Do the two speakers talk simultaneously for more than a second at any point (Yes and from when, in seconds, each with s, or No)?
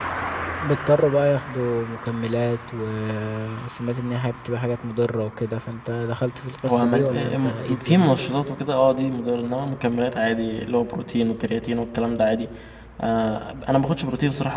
Yes, from 6.6 s